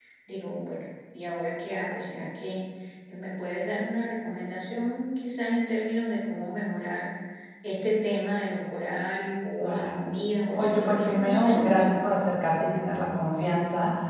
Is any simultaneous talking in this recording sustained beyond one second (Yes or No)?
Yes